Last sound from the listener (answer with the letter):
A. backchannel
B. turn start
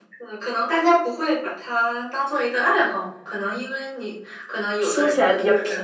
B